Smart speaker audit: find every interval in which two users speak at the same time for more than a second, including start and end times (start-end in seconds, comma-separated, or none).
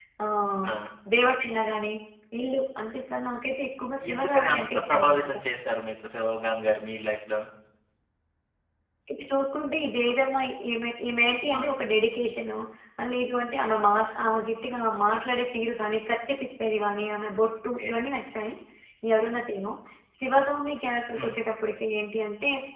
4.1-5.3